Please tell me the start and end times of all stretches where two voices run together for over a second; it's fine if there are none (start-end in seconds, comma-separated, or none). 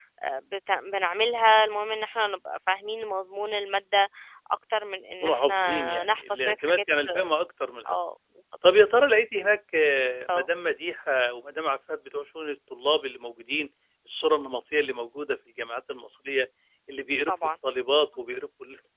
5.2-6.8